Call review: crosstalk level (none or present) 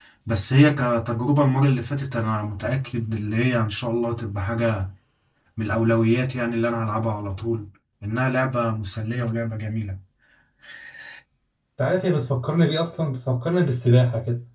none